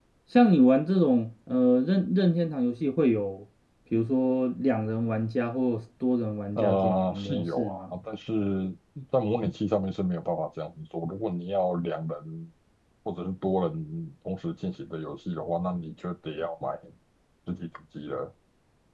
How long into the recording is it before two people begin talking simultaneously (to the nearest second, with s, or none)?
7 s